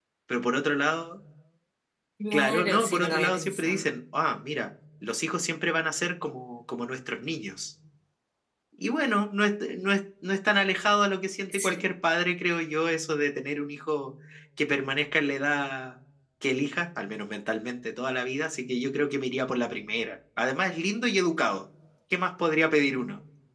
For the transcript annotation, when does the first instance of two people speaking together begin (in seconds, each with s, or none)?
2.3 s